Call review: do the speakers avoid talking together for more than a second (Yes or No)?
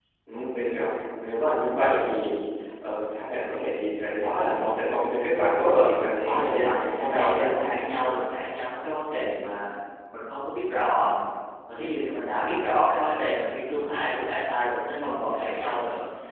No